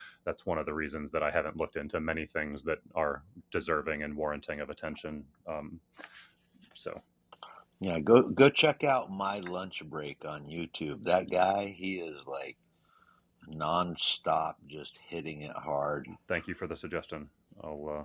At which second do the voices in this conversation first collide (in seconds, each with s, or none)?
none